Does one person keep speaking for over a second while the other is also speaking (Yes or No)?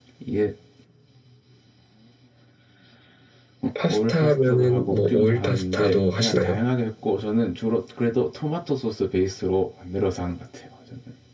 Yes